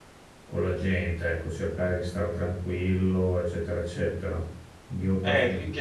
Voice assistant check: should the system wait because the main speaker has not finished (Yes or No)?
No